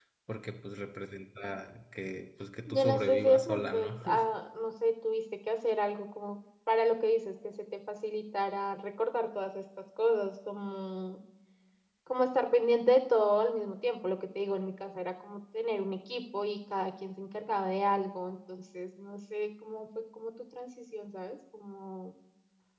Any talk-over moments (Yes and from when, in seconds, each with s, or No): Yes, from 2.7 s